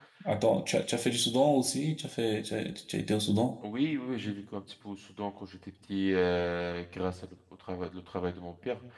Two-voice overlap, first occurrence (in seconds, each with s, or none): none